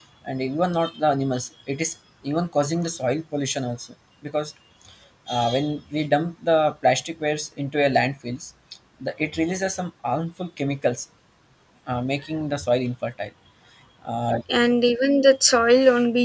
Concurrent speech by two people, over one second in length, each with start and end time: none

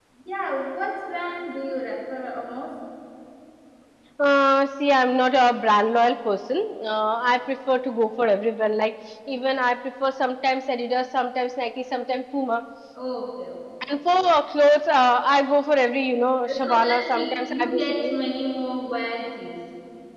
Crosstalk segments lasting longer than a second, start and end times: 16.5-18.1

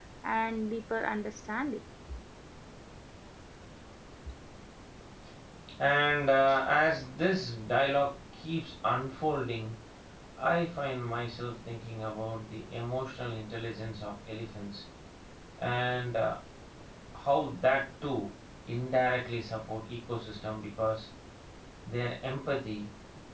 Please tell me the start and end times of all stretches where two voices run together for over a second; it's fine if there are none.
none

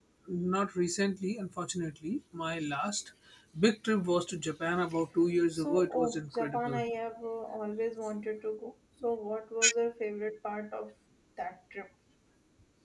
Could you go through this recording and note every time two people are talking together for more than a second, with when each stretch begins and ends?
5.5-6.8

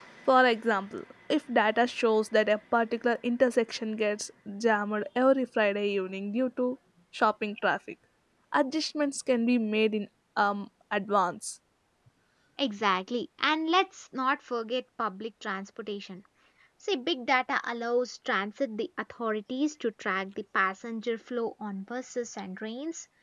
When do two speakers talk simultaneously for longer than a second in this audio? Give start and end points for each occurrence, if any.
none

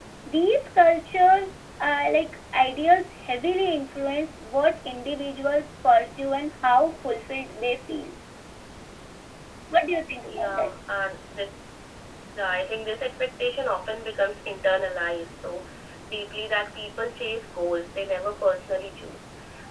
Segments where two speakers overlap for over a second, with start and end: none

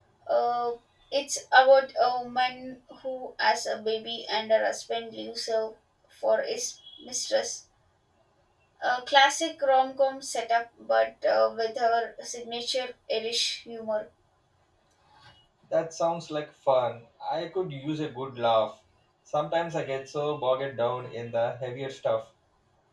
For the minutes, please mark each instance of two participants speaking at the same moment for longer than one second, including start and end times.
none

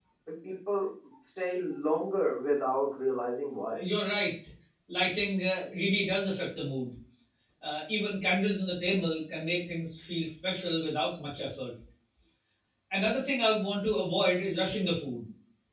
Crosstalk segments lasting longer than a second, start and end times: none

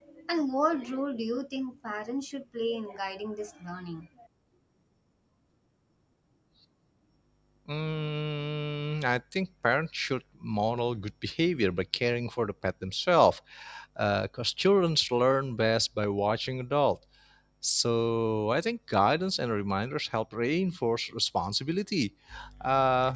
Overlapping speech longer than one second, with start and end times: none

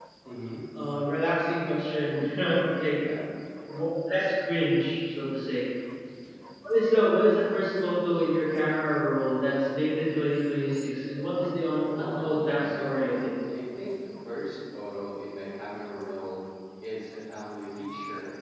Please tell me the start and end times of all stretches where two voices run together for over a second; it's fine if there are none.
12.0-13.2

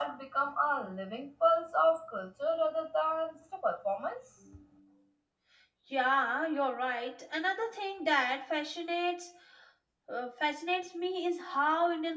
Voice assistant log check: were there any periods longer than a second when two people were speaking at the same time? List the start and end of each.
none

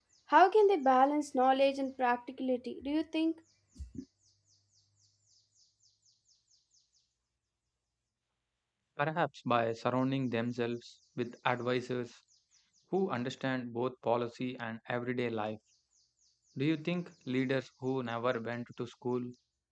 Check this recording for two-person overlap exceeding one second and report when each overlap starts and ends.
none

